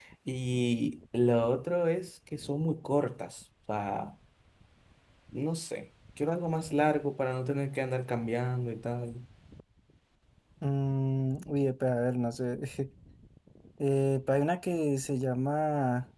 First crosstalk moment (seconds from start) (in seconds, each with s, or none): none